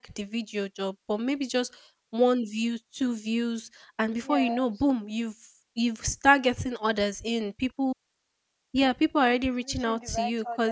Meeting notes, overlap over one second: present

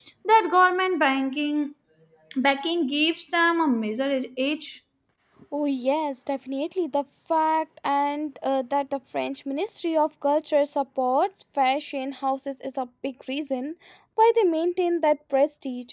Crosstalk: none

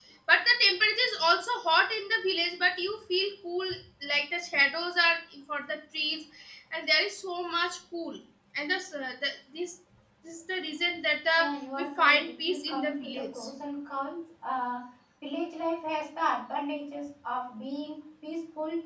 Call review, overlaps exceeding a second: present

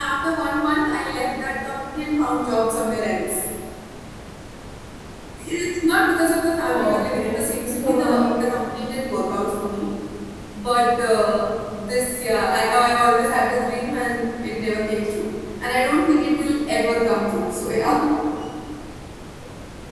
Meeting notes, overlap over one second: present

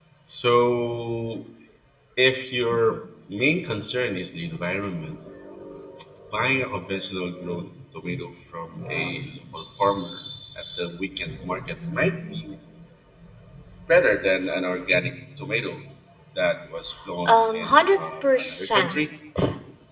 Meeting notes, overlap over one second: present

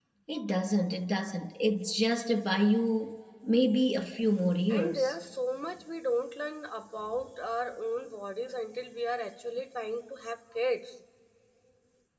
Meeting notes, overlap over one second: none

